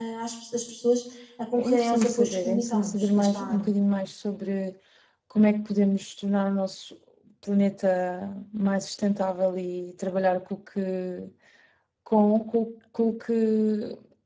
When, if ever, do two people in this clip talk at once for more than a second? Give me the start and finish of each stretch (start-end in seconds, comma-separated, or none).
1.6-3.7